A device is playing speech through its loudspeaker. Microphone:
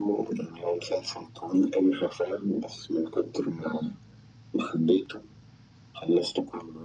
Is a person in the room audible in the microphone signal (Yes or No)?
No